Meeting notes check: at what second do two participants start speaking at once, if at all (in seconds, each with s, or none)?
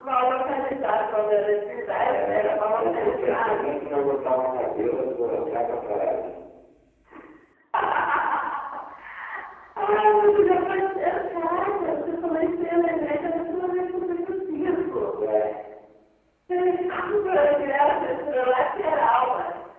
1.9 s